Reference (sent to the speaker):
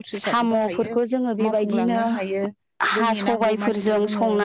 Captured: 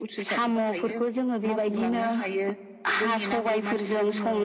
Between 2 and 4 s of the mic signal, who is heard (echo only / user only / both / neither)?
echo only